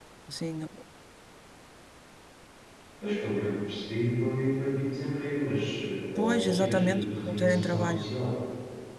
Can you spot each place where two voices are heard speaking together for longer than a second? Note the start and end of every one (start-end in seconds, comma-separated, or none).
6.2-8.1